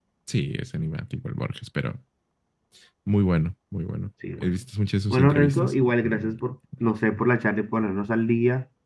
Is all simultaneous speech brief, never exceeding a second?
No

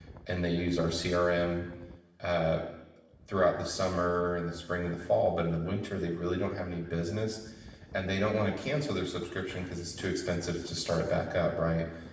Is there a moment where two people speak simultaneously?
No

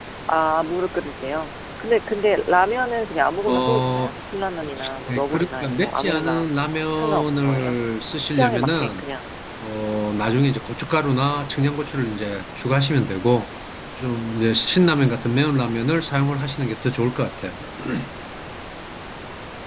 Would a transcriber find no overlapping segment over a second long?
No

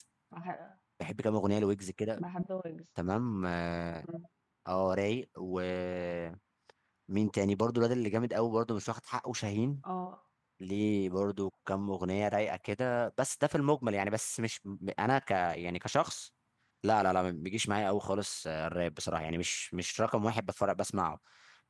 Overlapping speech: No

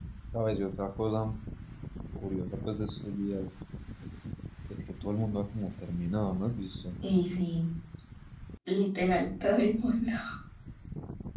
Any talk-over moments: No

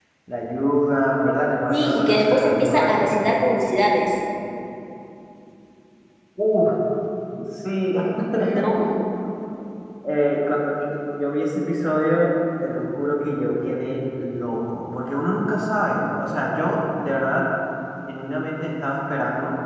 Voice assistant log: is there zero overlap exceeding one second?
No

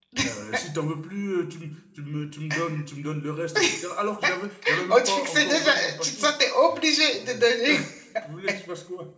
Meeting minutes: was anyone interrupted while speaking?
Yes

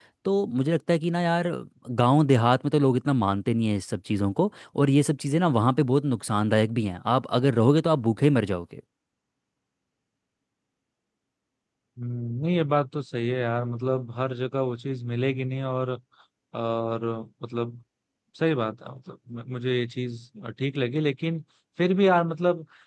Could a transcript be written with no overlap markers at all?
Yes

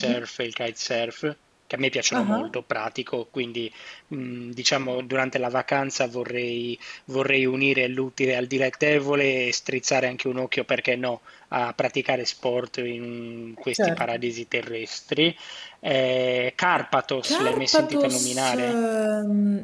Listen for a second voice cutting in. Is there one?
Yes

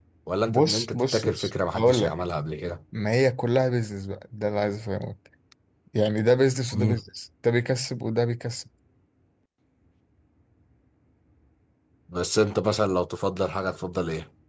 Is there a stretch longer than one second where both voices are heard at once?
Yes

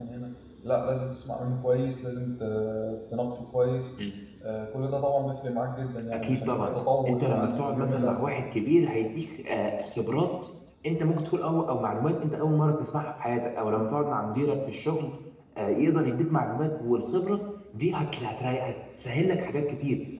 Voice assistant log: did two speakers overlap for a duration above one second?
Yes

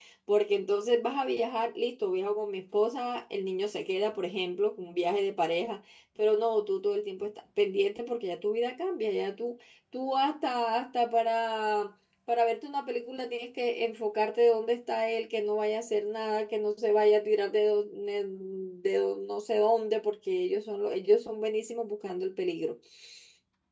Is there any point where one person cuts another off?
No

